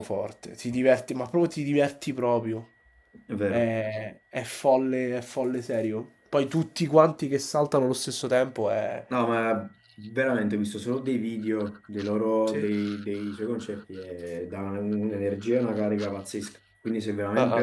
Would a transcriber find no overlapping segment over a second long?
Yes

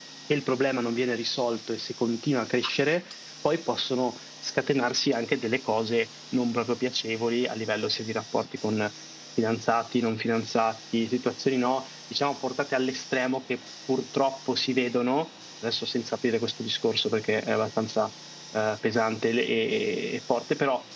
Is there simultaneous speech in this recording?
No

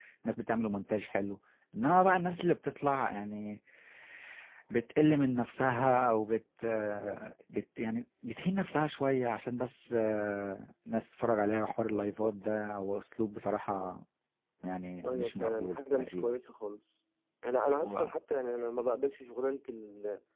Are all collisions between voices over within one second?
No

